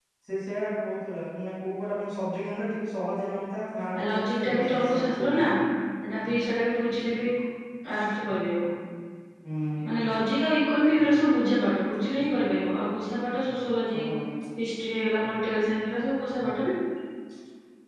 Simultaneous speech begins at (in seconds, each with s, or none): 3.9 s